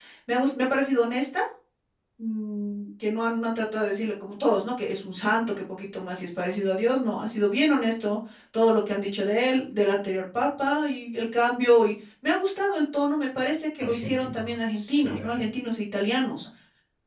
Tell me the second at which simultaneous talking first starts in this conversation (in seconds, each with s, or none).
13.8 s